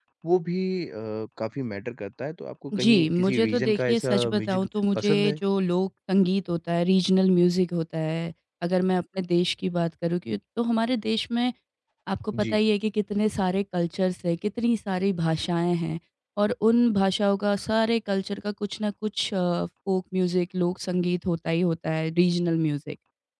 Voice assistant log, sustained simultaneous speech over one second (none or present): present